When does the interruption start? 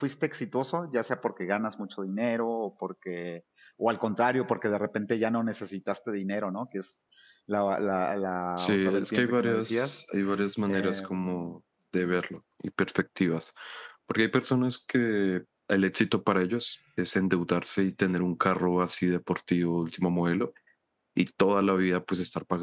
8.6 s

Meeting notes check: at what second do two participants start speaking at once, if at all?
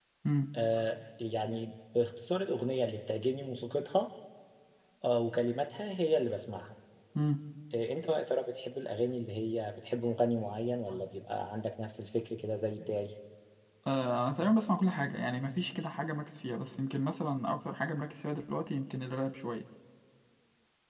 none

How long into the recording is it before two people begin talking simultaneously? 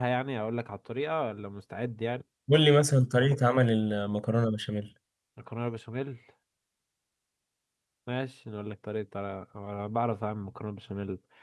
none

